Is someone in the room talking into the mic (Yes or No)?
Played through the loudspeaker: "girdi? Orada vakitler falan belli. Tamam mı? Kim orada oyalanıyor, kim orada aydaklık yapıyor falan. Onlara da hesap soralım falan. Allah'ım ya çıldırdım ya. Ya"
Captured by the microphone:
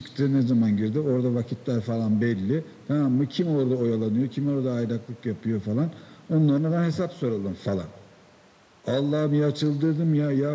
No